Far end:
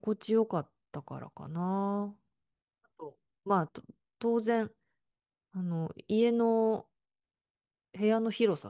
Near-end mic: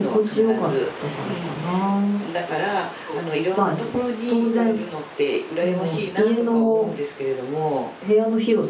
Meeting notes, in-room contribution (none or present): present